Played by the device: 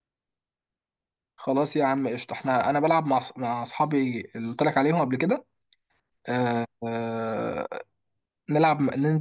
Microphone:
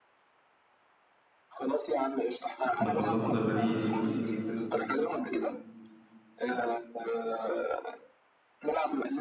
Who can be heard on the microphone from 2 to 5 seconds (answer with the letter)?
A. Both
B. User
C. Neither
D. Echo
A